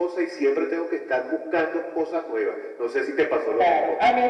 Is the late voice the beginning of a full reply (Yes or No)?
Yes